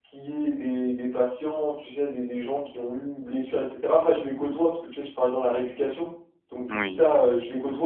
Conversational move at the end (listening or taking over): listening